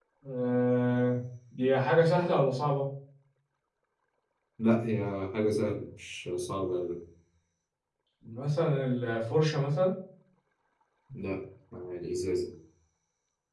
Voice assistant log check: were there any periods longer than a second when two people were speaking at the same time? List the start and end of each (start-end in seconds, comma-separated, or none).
none